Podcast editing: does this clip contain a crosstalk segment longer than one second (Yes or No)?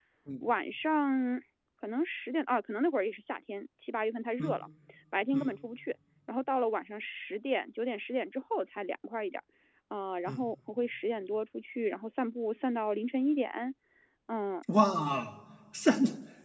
No